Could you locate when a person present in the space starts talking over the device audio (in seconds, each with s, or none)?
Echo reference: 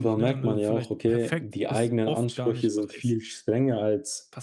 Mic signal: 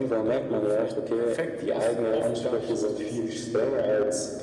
none